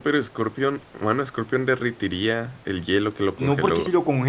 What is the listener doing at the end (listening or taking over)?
taking over